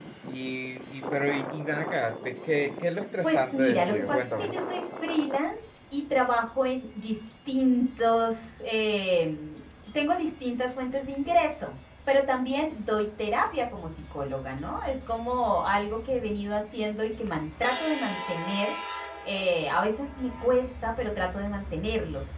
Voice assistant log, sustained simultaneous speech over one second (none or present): present